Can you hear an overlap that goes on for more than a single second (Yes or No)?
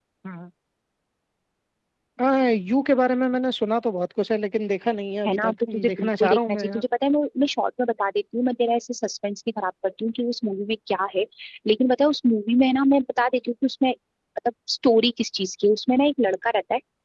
Yes